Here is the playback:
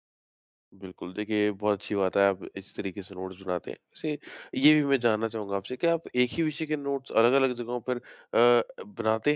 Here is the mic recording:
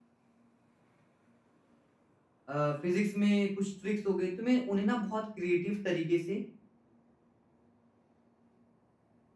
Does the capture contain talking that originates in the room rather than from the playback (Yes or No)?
Yes